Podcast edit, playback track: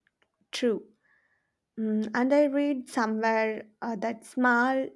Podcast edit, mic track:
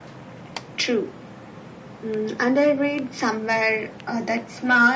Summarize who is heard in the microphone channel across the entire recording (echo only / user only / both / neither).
echo only